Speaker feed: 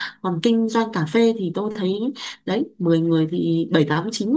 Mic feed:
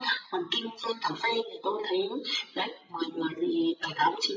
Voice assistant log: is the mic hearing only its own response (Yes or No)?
Yes